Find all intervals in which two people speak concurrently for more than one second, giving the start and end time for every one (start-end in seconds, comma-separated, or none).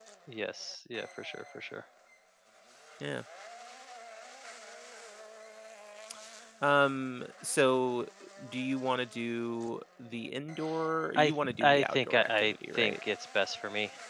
11.2-12.9